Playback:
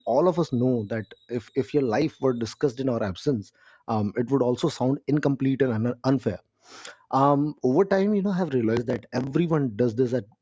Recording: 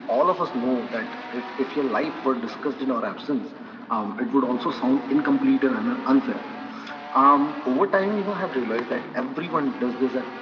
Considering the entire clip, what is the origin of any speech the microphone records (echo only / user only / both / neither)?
echo only